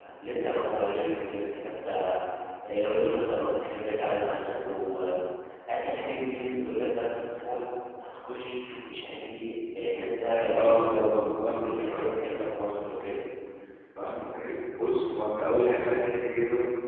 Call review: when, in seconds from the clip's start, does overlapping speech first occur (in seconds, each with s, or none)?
10.5 s